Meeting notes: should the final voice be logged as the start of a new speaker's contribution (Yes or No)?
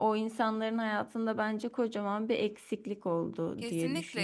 Yes